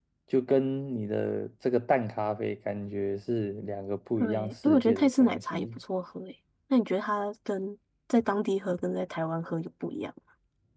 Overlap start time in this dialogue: 4.2 s

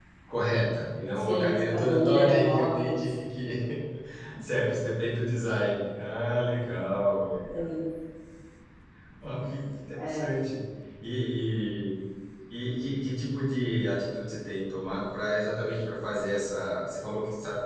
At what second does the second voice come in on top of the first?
1.2 s

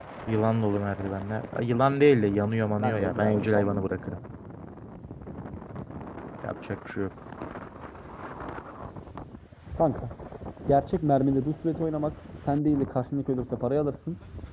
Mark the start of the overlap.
2.8 s

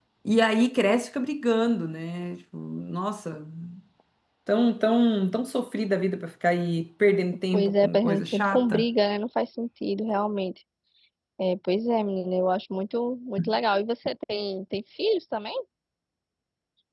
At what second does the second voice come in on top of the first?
7.5 s

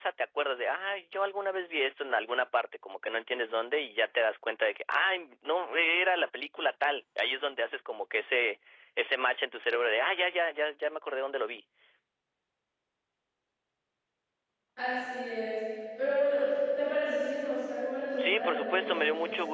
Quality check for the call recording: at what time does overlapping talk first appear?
18.1 s

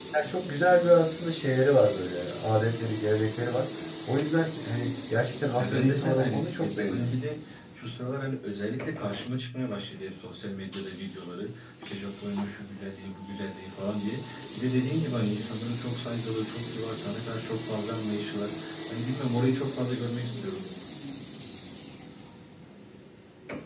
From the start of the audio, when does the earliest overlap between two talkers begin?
5.6 s

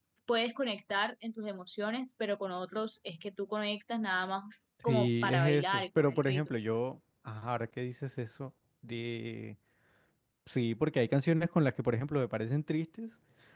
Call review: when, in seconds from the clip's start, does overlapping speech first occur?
4.9 s

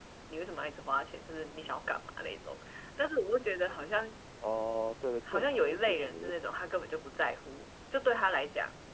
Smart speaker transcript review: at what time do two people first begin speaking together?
5.3 s

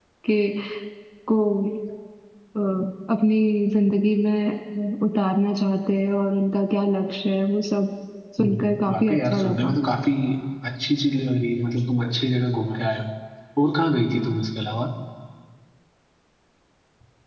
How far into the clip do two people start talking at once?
8.4 s

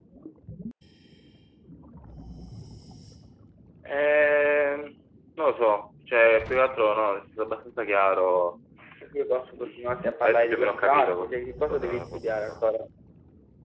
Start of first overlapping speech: 10.2 s

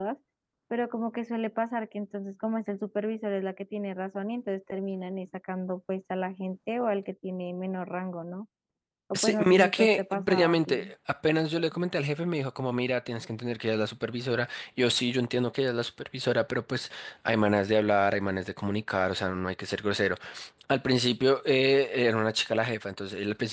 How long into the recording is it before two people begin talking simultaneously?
9.1 s

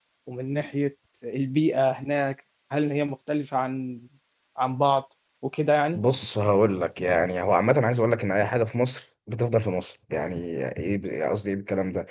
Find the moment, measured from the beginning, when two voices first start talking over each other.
none

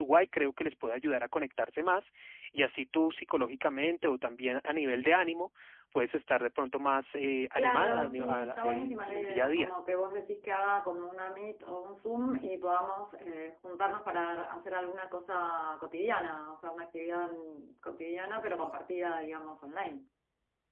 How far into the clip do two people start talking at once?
7.6 s

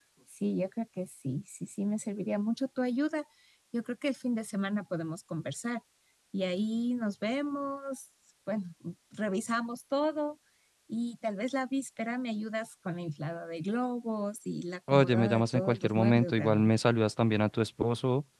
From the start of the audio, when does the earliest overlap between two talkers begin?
14.9 s

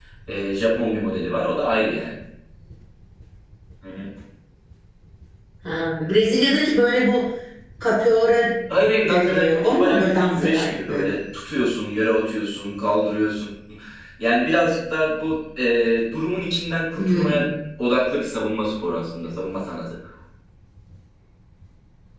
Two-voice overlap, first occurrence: 9.1 s

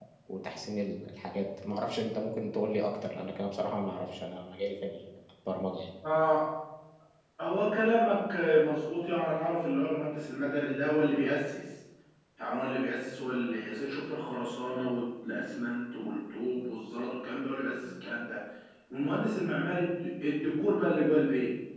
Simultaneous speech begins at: none

